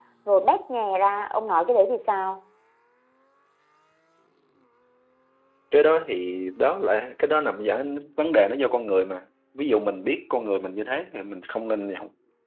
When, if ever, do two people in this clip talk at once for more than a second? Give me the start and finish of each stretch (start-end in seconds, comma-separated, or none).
none